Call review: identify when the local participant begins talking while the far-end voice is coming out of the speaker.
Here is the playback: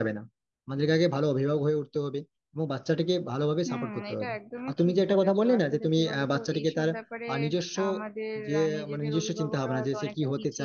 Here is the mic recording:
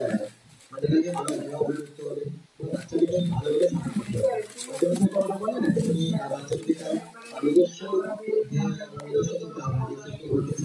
none

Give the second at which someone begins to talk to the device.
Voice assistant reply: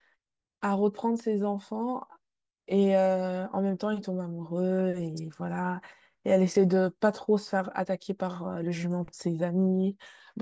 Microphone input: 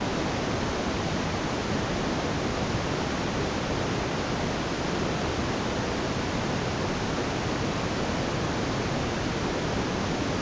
none

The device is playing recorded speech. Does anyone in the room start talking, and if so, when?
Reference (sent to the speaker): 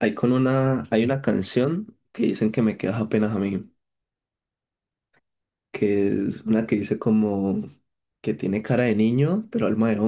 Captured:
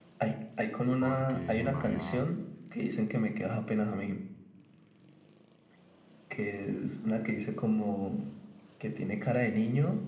1.0 s

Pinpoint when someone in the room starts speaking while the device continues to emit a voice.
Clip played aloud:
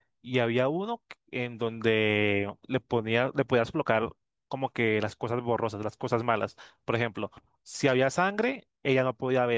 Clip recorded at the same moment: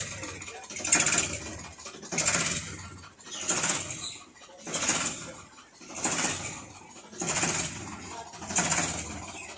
none

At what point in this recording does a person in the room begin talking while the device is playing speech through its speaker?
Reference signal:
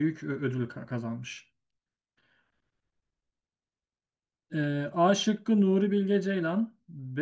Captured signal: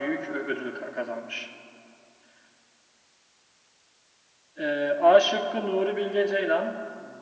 none

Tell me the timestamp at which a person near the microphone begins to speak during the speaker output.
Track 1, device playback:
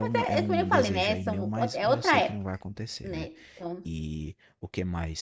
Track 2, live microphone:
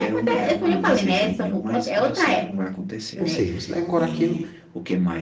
3.2 s

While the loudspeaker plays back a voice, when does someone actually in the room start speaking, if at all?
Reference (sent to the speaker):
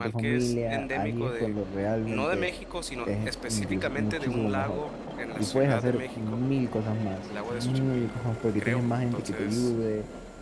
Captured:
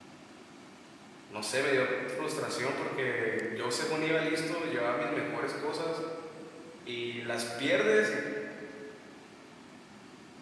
1.3 s

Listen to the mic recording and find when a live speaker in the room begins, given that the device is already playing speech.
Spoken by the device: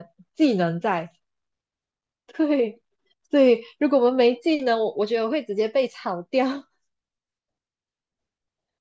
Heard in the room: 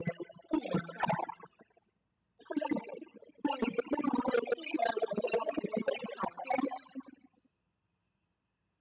none

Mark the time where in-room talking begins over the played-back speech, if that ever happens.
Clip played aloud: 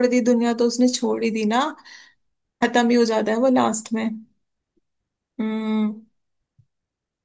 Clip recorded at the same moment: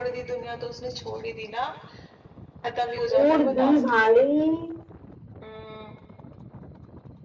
2.8 s

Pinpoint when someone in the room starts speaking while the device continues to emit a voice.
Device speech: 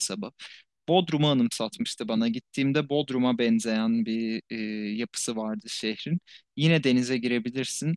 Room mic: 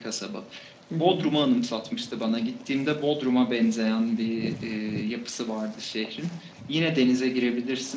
0.9 s

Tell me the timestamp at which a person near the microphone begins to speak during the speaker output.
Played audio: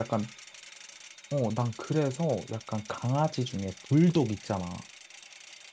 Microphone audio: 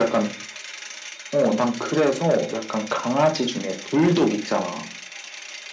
none

